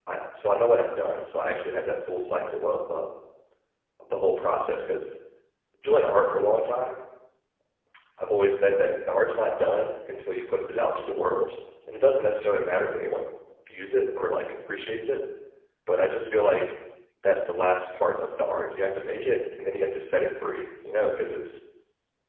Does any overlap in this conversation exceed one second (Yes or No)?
No